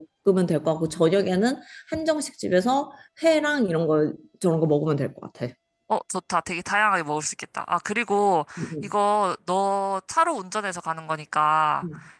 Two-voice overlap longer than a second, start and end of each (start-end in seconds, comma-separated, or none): none